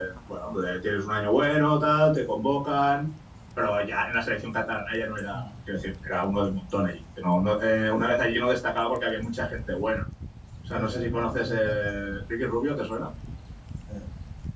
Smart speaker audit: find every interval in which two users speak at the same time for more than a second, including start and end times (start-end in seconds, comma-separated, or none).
10.7-12.2